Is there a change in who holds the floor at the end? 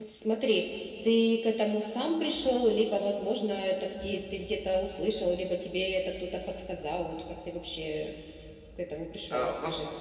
Yes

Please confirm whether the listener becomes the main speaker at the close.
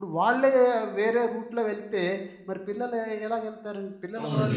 Yes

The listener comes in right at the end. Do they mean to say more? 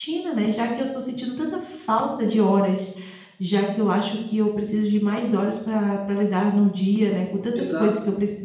No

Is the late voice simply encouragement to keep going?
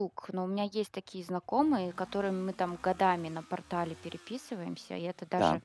Yes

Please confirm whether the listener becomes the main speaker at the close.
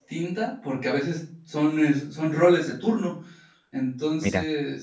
No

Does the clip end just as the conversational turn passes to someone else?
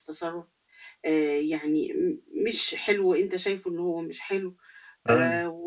No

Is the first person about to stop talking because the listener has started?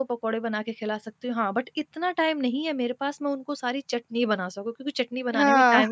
No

